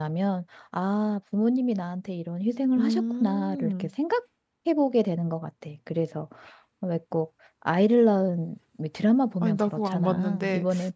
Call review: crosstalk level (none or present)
present